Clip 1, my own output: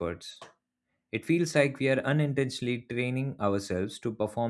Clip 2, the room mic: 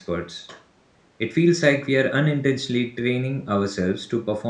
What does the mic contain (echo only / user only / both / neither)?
echo only